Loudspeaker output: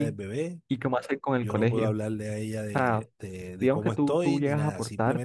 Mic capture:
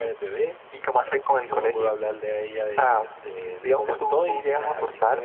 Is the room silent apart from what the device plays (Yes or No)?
Yes